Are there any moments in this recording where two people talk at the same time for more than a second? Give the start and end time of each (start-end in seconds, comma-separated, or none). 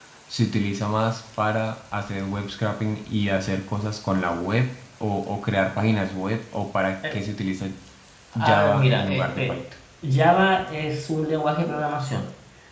8.4-9.6